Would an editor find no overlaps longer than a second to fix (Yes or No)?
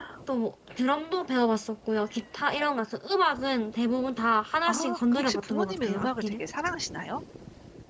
No